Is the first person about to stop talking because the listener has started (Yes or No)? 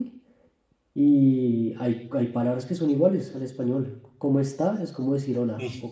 No